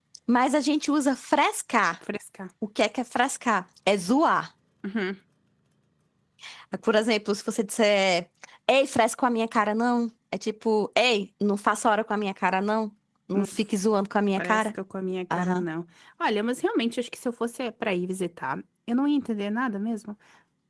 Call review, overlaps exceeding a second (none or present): none